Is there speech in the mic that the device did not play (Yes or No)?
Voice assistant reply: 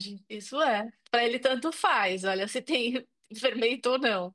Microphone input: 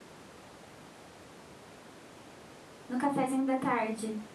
Yes